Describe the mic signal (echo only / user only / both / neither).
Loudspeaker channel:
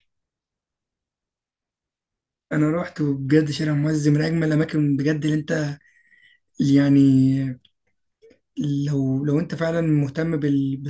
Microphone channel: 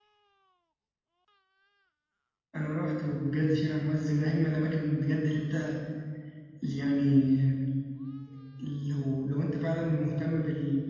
echo only